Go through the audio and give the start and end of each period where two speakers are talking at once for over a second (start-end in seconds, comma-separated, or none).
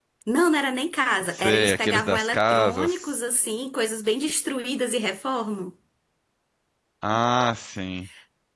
1.3-3.1